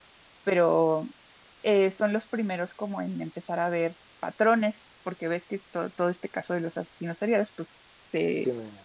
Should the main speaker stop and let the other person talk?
No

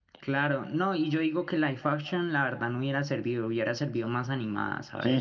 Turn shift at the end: Yes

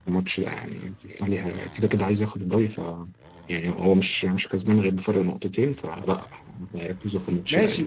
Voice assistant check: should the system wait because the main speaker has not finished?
No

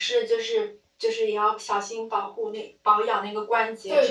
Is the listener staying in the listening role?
No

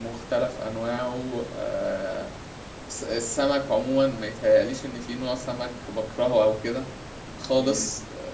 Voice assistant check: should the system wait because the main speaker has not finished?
Yes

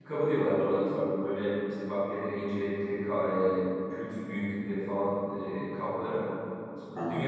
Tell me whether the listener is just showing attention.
Yes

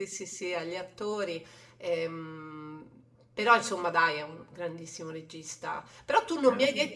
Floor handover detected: No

